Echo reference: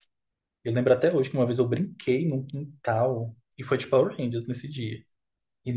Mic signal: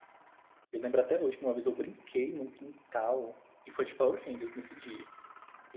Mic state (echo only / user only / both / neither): echo only